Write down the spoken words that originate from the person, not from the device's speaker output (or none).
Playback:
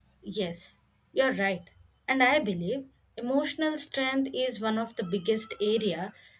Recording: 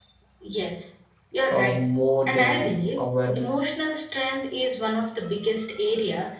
uh, more than our